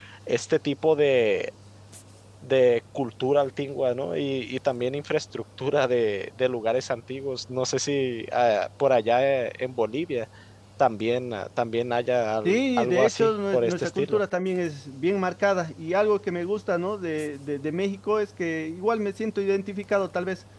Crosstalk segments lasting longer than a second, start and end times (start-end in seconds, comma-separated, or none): 12.4-14.2